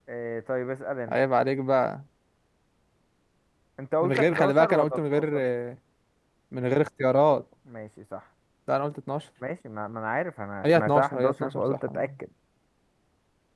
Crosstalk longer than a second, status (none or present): present